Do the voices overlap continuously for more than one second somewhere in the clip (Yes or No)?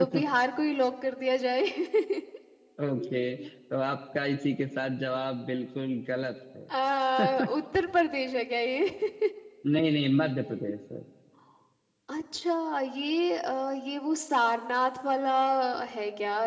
No